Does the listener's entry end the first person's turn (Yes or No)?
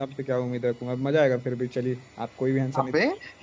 Yes